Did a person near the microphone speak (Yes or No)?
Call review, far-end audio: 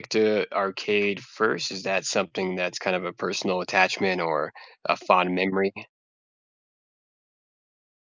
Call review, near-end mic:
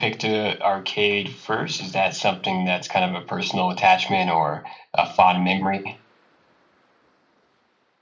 No